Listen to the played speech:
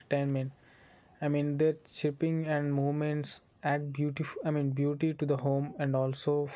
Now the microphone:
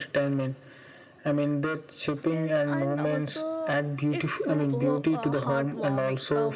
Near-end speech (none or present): present